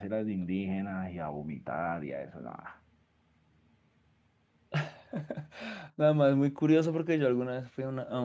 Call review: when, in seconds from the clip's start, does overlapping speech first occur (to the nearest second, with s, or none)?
none